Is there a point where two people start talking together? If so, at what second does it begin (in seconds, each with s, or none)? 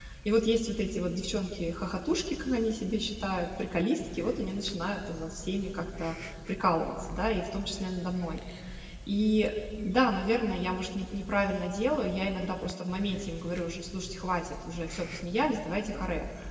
none